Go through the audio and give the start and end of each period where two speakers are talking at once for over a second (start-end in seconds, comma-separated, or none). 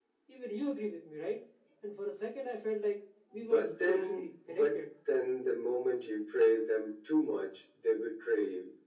3.3-4.8